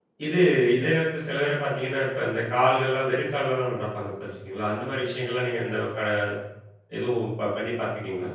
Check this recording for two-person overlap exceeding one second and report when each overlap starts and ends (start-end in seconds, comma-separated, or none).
none